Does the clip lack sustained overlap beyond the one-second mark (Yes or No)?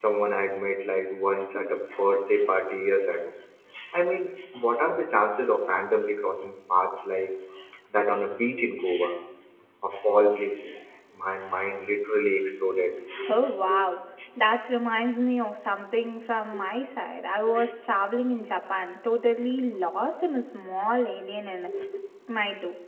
Yes